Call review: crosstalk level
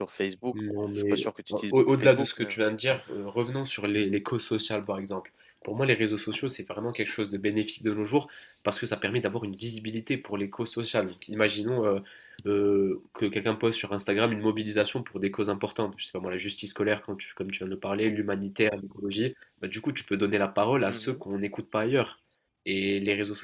present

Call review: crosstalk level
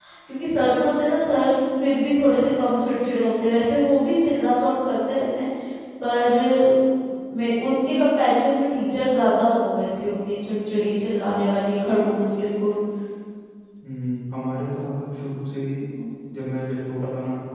none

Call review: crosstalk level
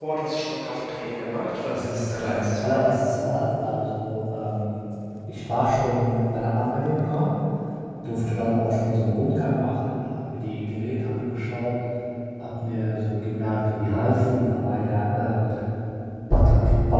present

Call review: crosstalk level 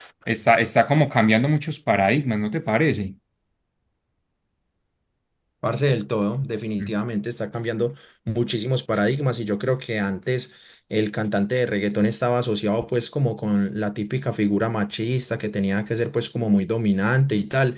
none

